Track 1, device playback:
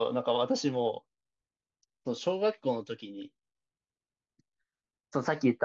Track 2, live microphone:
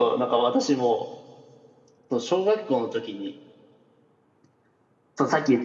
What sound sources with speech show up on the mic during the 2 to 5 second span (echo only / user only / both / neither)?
echo only